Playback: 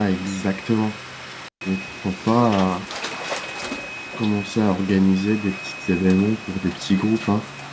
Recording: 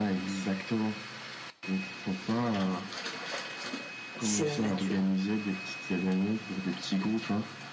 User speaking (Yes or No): Yes